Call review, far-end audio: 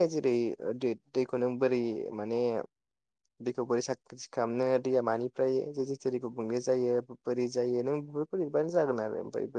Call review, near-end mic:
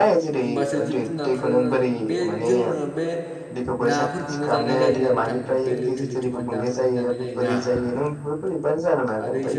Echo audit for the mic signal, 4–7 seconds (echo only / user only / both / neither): both